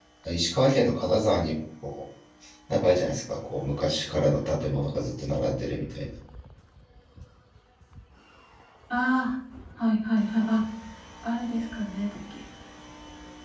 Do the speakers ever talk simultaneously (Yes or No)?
No